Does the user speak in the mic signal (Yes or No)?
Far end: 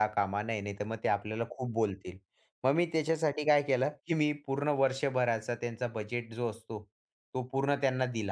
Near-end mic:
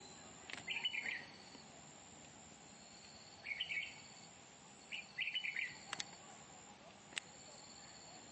No